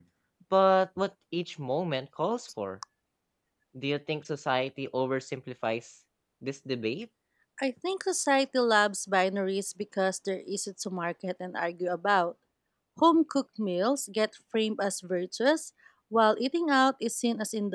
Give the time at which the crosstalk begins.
none

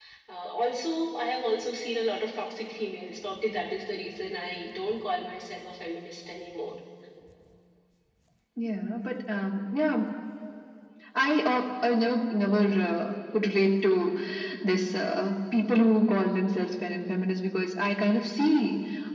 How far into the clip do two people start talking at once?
none

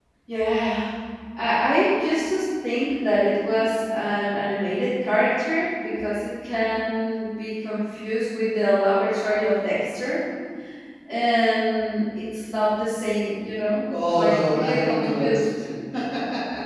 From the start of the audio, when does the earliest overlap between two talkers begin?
14.2 s

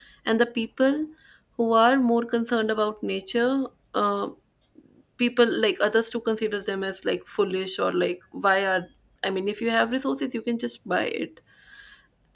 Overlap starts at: none

